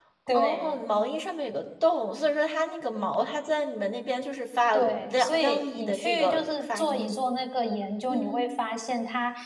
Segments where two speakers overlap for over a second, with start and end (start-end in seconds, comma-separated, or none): 4.7-7.2